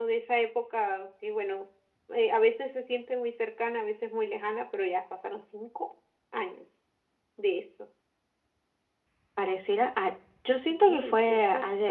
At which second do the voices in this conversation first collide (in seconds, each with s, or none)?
10.7 s